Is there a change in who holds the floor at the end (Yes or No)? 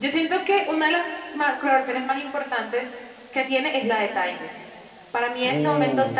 No